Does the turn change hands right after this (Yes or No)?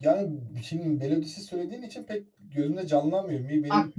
Yes